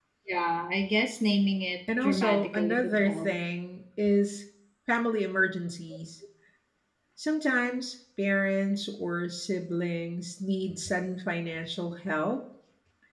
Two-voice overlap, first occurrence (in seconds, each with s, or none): 1.9 s